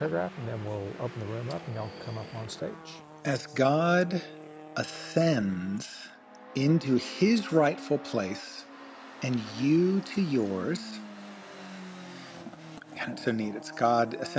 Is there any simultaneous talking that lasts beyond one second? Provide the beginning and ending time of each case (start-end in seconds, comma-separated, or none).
none